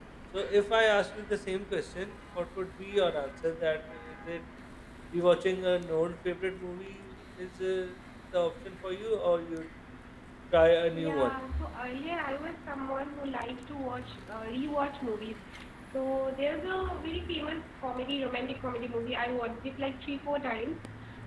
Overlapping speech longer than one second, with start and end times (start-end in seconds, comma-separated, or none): none